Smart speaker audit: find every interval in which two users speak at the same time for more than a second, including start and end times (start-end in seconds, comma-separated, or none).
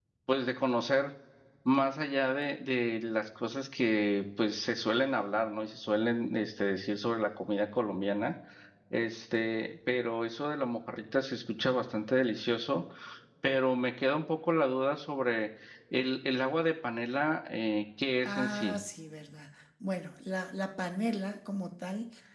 none